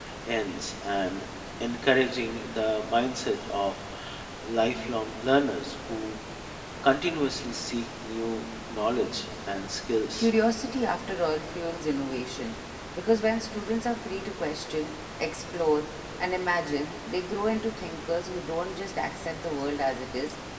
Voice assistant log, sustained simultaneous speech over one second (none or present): none